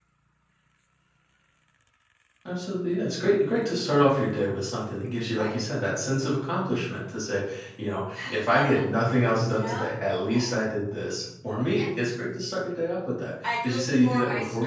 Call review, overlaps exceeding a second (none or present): present